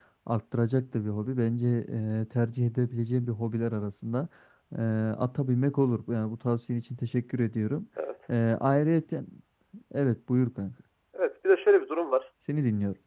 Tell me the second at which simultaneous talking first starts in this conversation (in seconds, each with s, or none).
none